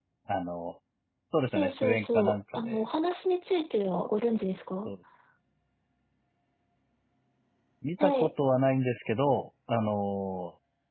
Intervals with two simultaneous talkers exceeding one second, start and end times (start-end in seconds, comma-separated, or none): 1.5-2.8